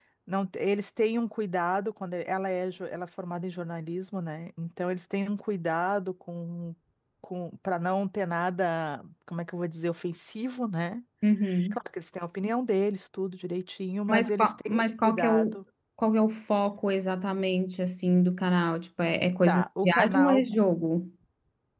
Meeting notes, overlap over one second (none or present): present